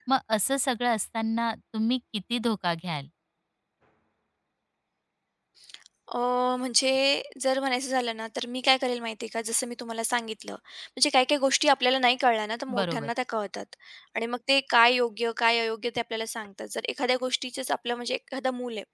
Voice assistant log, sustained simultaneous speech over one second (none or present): none